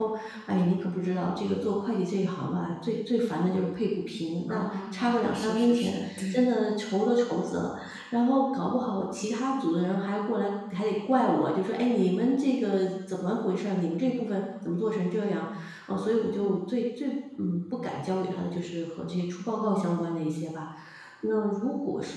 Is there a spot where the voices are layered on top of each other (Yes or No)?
Yes